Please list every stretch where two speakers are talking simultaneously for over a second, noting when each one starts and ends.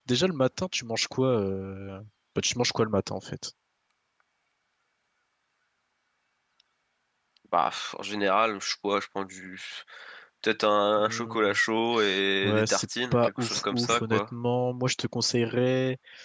12.4-14.2

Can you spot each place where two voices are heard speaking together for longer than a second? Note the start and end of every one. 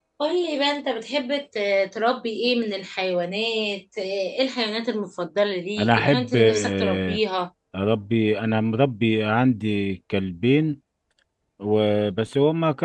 5.8-7.2

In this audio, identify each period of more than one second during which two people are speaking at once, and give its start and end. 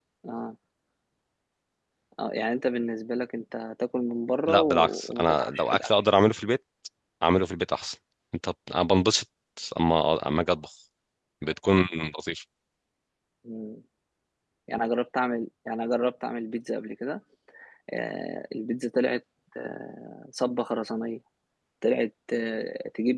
4.5-5.9

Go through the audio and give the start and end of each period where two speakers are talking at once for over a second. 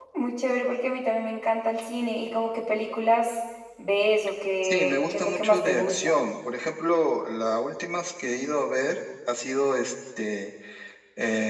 4.6-6.1

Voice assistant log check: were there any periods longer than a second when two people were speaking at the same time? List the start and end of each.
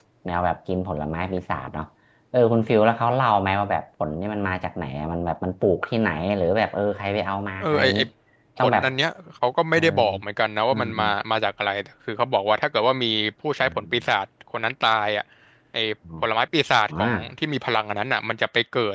none

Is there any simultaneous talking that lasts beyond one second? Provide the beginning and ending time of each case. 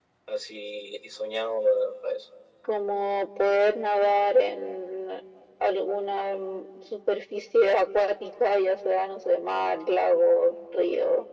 none

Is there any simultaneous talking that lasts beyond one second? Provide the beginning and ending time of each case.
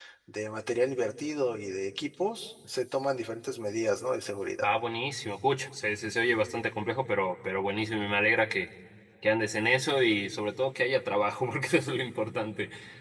none

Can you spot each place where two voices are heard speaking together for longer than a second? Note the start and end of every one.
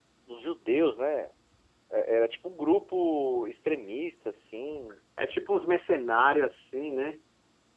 none

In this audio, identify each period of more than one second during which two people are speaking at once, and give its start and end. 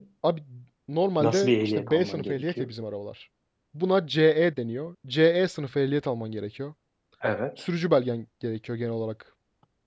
1.2-2.7

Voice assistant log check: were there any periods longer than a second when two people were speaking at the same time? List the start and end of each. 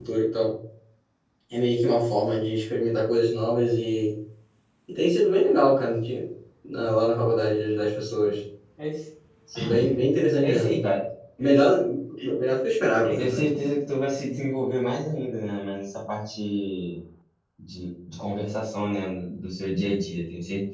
none

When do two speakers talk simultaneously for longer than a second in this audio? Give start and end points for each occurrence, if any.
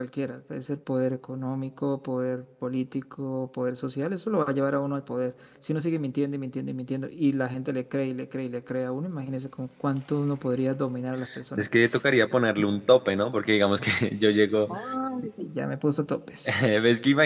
none

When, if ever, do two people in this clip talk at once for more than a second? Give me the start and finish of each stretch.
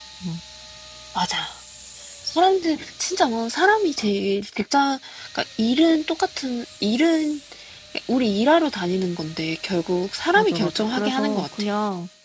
10.3-11.6

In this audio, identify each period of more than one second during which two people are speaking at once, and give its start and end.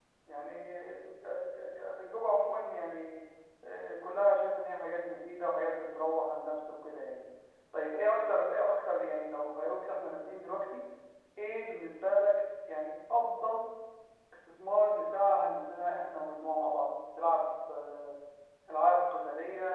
none

